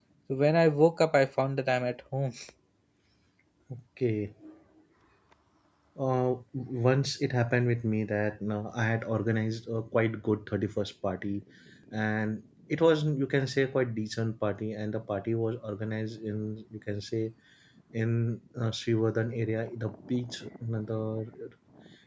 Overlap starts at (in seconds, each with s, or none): none